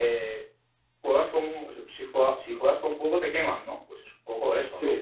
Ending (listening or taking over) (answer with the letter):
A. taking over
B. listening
A